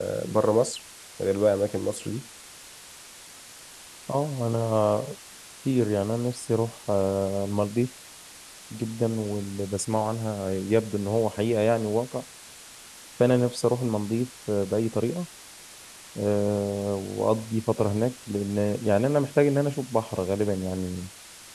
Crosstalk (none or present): none